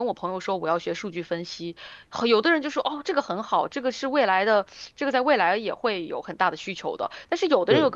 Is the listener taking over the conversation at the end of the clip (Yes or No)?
No